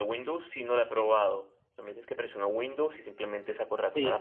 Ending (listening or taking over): taking over